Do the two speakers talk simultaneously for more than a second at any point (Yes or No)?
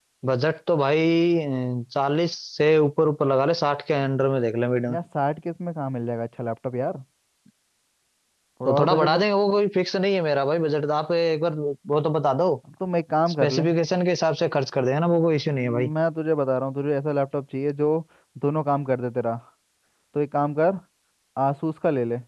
No